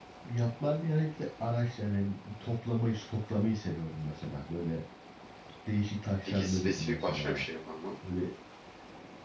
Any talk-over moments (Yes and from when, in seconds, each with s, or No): Yes, from 6.2 s